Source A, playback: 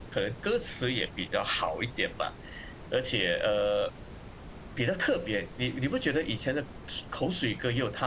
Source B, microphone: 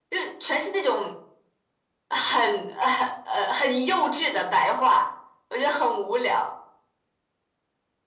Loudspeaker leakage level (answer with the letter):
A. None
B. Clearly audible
A